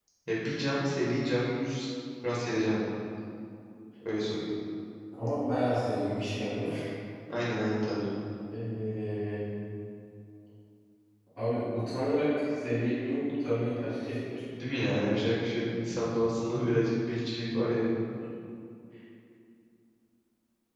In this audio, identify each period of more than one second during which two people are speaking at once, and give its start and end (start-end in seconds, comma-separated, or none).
none